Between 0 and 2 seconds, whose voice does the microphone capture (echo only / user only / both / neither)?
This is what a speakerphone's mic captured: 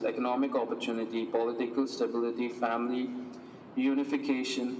echo only